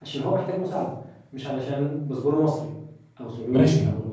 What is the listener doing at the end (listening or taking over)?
taking over